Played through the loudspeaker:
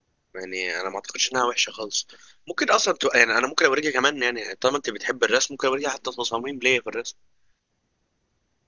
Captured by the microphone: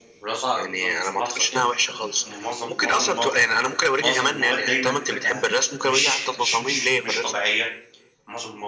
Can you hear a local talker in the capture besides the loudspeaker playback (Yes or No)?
Yes